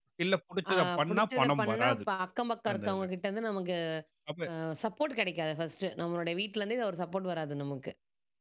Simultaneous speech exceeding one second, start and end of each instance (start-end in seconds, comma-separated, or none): 0.7-2.0